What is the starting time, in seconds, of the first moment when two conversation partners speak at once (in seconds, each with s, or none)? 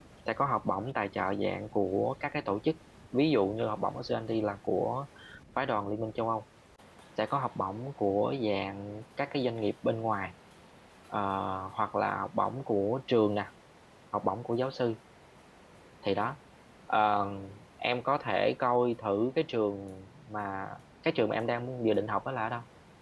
none